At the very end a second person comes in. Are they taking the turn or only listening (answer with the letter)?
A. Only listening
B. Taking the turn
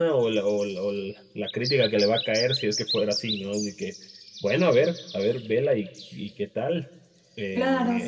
B